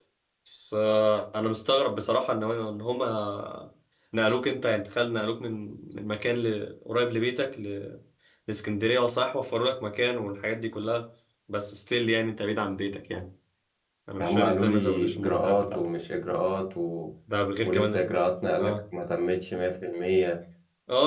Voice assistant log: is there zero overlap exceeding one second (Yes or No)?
No